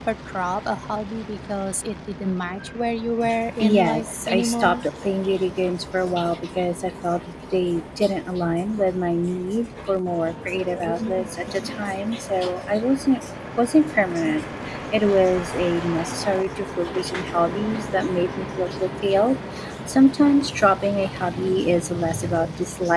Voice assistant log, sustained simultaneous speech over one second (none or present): present